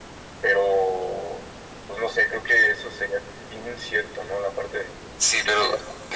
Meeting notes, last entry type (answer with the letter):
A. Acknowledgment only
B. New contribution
B